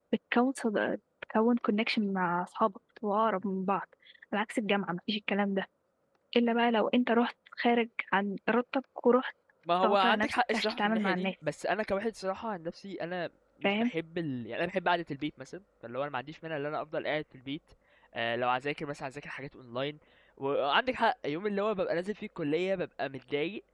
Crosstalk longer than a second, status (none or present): present